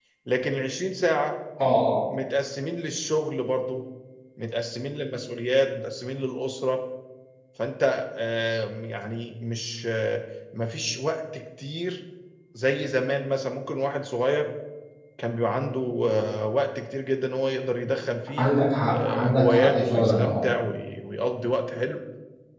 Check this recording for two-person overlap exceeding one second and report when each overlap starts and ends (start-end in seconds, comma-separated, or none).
18.9-20.4